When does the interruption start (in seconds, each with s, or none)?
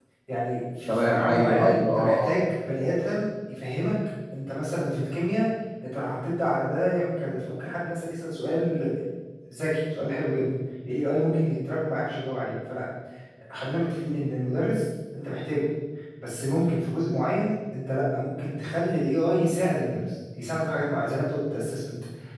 0.9 s